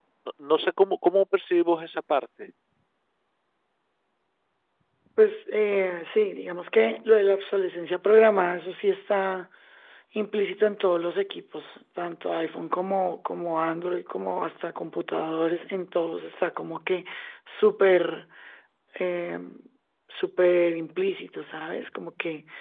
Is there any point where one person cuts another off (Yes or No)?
No